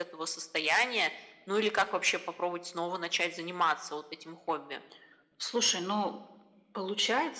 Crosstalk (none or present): none